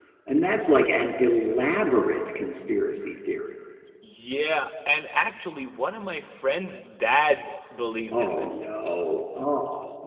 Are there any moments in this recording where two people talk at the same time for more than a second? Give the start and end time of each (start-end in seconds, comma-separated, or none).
none